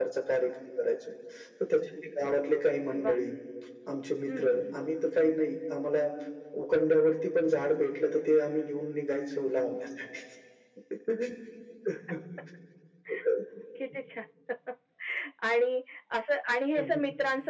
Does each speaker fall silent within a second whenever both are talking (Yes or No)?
Yes